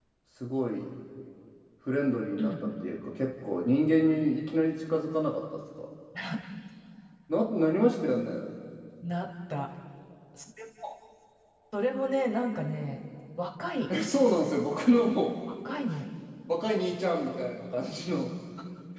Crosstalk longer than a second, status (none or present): none